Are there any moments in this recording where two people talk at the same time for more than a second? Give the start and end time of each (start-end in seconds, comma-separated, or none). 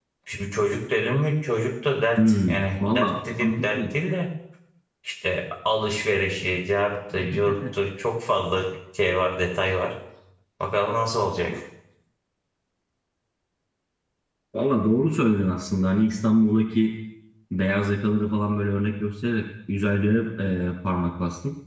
2.2-3.8